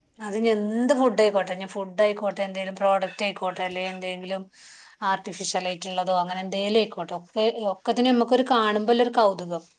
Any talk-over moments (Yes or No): No